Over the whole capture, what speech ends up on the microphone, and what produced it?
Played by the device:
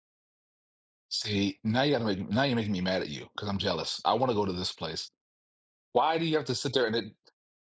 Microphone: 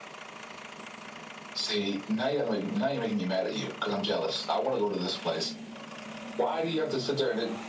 echo only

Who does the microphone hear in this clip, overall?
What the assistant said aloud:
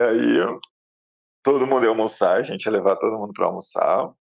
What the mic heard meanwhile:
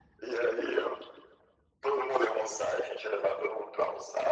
echo only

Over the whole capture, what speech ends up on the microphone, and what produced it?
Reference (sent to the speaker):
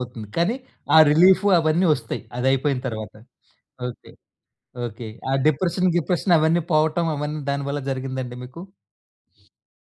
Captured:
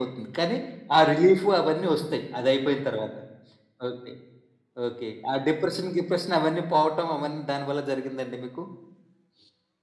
echo only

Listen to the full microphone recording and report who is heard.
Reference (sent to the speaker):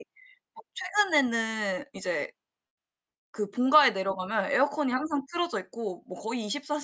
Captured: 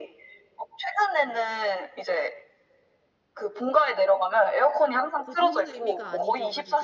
both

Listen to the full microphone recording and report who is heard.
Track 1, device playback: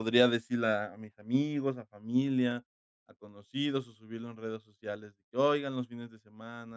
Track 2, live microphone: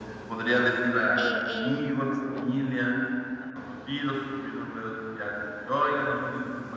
both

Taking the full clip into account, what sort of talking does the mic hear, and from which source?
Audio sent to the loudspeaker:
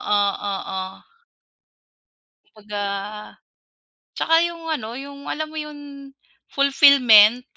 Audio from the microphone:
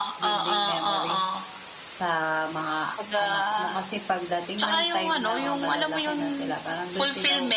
both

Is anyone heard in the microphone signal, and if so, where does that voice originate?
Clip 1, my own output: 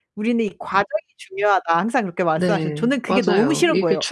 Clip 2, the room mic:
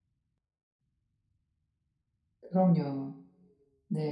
user only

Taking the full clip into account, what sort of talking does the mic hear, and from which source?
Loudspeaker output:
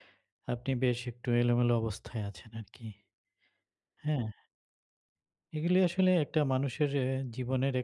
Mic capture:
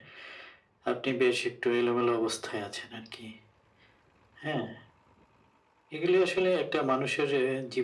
echo only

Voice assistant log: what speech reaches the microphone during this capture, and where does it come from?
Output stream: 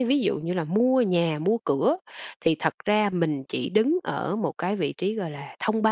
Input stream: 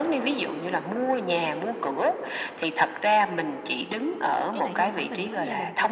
both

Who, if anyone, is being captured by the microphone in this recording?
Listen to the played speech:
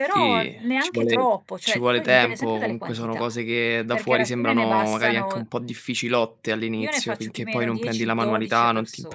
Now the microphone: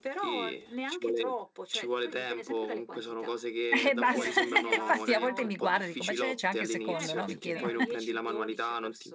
both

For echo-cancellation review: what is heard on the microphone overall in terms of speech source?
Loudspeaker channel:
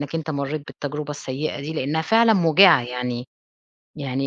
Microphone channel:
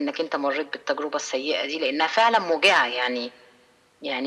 echo only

